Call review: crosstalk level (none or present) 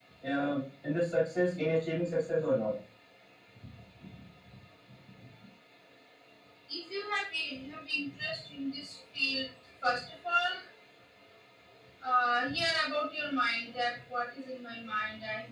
none